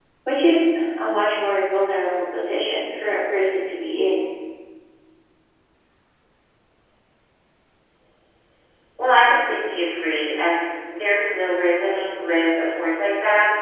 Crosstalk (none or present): none